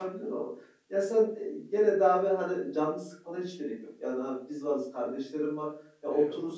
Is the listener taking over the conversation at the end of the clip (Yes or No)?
No